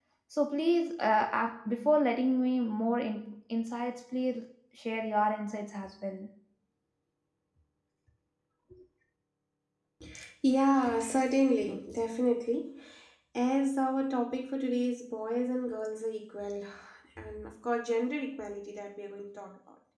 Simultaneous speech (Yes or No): No